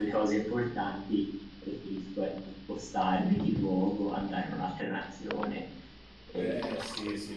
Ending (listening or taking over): taking over